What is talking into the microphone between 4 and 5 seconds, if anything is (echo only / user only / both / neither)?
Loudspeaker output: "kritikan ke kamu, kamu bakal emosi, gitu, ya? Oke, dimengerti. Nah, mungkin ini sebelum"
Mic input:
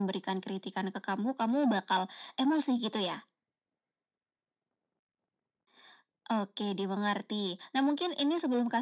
neither